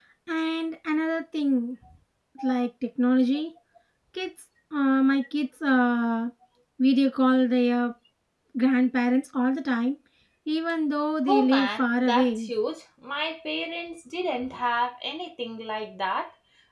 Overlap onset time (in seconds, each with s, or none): 11.3 s